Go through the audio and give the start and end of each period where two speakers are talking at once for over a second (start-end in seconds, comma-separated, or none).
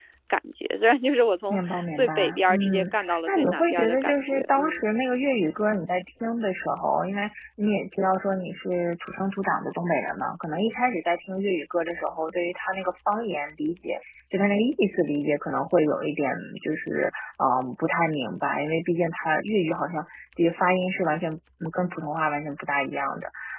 1.5-4.9